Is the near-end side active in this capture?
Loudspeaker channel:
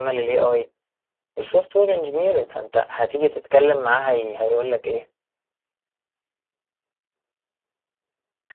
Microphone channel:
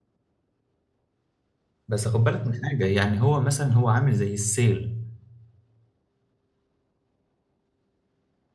Yes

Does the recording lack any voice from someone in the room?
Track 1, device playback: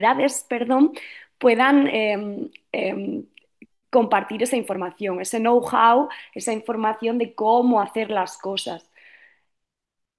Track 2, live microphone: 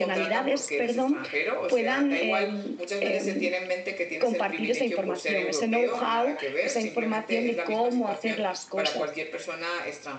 No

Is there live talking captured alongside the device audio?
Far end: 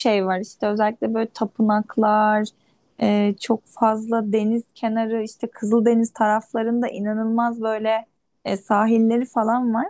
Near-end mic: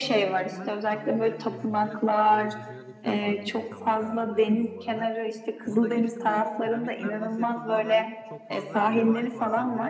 Yes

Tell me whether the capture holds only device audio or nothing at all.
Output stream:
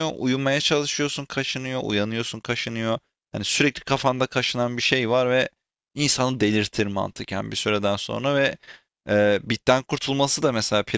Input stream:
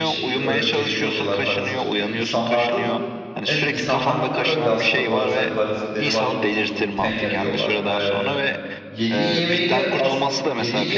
No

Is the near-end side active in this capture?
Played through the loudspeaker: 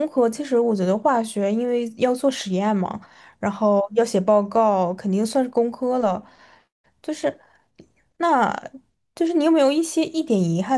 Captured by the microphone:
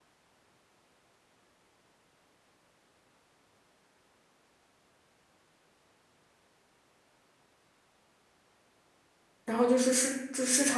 Yes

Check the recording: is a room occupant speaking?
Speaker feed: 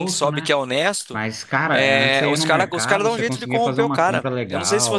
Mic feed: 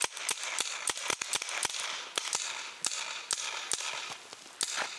No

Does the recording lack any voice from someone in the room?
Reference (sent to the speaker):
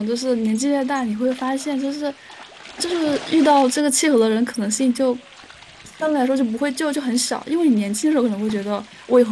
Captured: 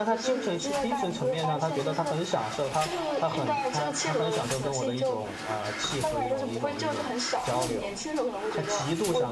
No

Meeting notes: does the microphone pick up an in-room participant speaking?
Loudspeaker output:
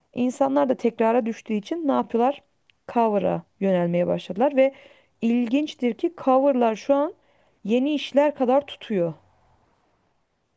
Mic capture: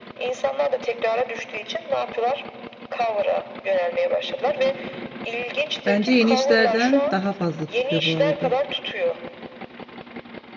Yes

